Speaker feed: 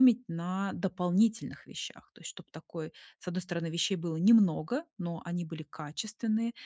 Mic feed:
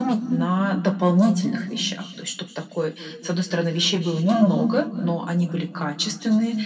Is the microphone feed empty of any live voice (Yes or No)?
Yes